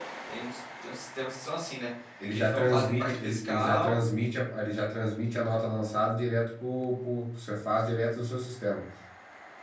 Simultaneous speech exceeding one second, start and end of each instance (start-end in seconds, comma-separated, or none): 2.3-4.0